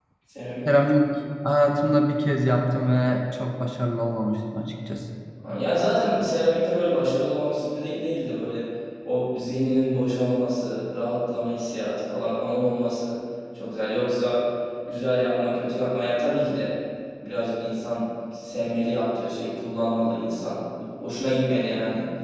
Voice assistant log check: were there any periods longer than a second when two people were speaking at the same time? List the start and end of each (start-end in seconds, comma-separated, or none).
none